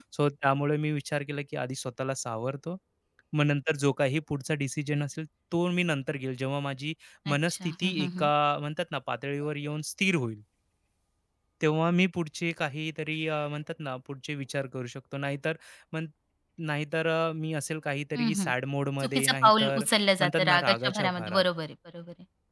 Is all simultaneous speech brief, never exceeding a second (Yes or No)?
No